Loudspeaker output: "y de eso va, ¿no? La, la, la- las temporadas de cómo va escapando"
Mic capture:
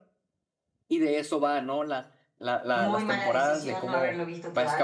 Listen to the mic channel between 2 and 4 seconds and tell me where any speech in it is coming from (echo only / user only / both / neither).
both